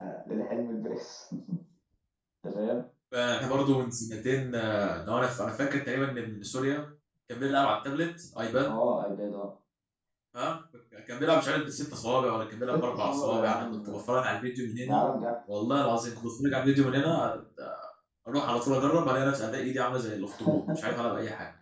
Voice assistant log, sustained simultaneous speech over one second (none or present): present